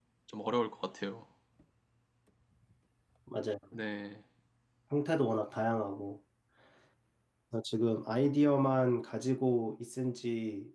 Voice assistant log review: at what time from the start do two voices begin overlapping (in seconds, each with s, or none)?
none